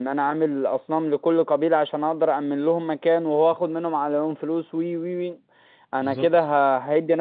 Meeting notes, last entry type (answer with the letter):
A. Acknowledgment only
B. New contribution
A